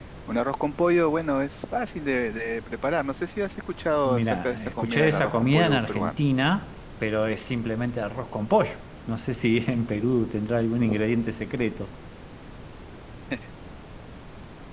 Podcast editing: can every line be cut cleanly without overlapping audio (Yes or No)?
No